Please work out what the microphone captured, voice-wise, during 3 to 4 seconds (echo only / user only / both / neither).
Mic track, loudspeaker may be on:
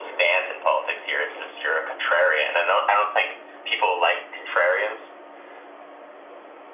echo only